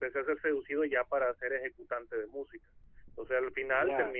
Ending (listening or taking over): listening